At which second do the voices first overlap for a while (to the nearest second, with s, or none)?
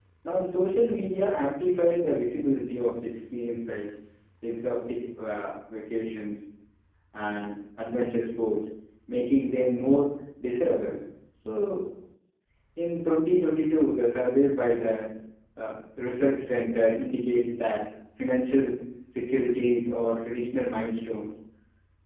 none